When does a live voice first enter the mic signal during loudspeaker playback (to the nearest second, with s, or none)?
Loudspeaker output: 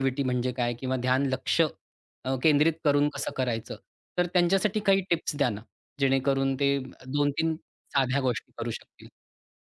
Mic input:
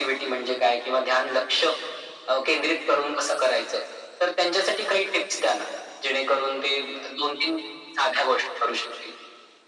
none